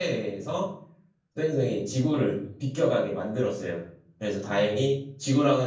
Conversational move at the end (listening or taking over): listening